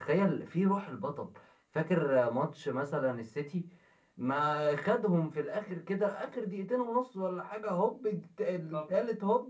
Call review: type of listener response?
listening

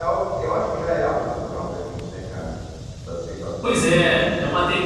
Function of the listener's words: taking over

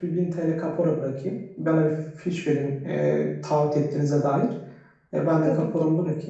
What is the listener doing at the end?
listening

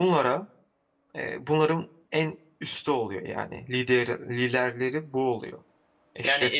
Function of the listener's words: taking over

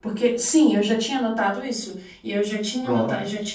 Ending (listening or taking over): listening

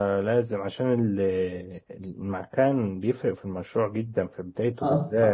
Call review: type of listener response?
taking over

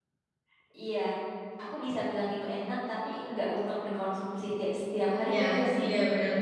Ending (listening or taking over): taking over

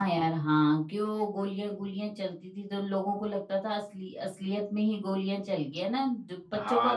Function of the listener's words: taking over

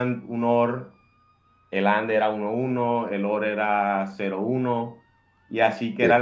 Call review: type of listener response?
listening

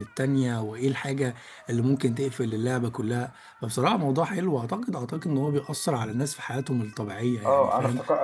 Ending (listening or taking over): taking over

